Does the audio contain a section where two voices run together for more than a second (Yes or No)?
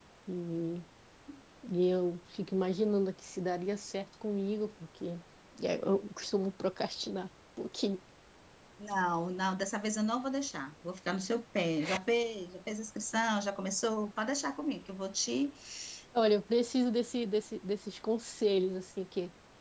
No